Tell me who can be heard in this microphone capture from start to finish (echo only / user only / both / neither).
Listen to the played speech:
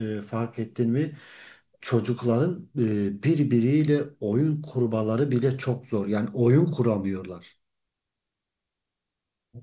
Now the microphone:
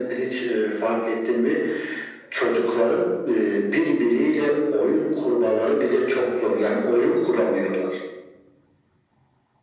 echo only